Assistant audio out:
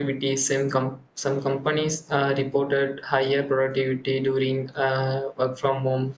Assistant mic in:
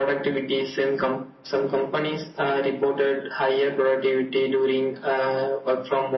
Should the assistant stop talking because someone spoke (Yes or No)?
No